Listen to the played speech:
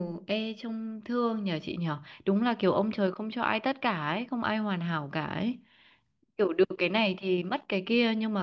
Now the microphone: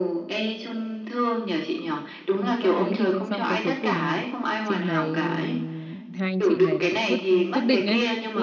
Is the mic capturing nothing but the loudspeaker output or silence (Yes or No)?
No